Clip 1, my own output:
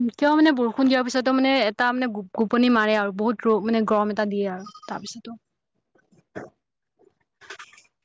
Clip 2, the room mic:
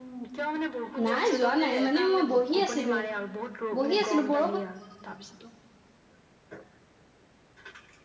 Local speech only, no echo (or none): নাই যোৱা নাই মানে মই বহি আছিলোঁ, বহি আছিলোঁ, বৰ